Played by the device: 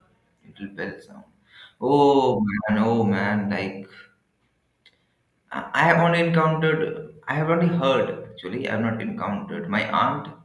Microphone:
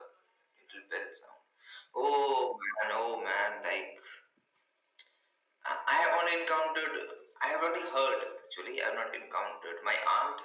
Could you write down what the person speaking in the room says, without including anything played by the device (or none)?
none